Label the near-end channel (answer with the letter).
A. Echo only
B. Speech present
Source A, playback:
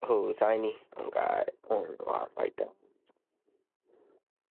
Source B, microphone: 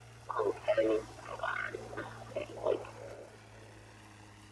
A